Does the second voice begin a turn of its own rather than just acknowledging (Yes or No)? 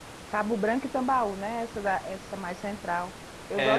Yes